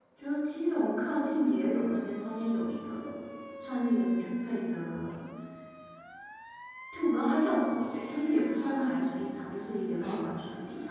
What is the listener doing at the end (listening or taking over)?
listening